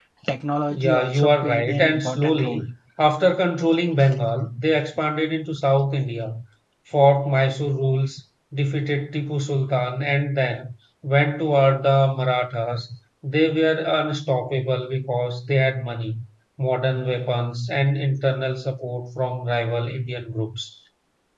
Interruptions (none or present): present